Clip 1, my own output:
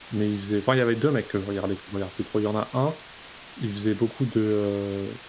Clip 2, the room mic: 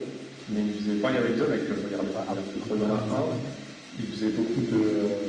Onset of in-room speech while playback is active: 2 s

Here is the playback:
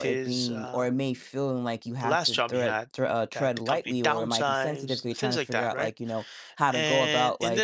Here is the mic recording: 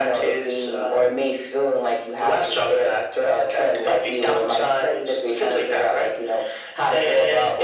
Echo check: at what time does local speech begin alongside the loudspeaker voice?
none

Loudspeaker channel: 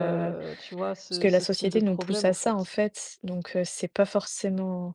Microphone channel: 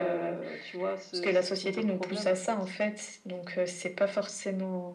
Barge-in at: none

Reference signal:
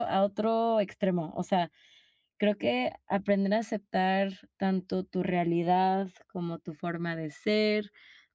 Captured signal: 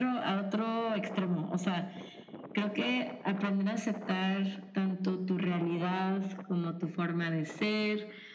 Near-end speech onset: none

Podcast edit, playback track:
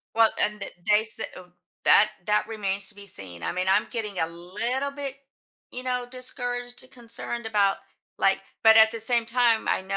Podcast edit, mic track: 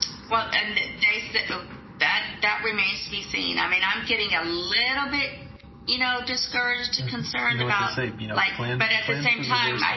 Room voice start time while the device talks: 7 s

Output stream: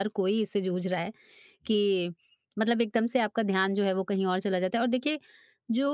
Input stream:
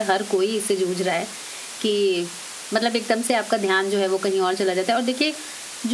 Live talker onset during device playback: none

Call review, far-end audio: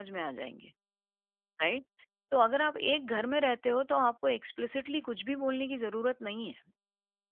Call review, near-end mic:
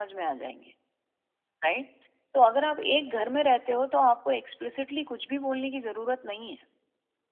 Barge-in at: none

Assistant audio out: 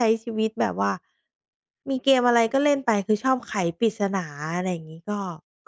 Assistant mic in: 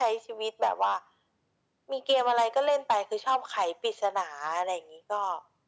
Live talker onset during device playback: none

